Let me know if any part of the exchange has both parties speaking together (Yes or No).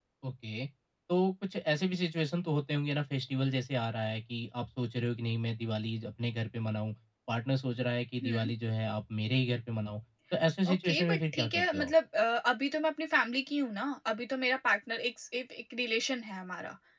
Yes